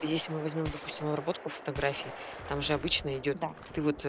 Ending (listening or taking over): listening